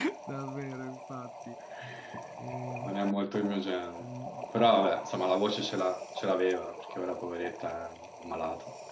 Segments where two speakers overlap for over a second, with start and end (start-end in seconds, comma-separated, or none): none